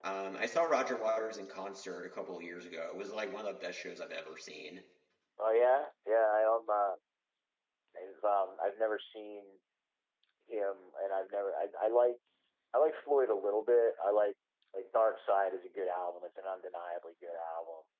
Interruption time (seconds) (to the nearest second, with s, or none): none